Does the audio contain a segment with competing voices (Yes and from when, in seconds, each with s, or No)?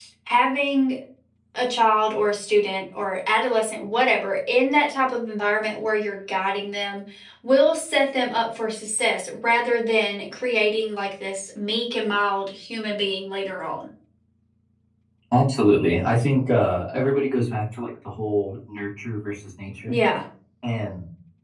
No